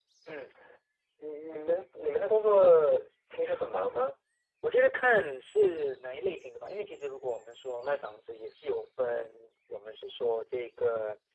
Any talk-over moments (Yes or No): No